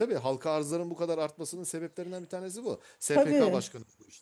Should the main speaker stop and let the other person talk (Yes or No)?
No